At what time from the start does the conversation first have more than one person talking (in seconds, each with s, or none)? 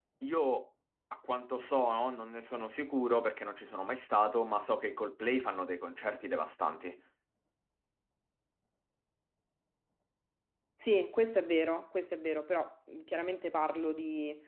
none